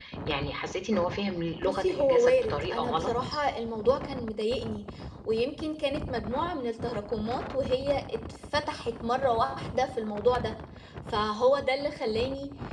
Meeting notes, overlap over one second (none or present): present